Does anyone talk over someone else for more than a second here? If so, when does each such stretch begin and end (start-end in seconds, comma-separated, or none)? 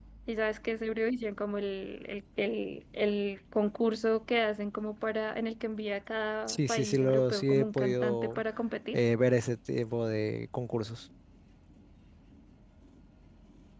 6.5-8.4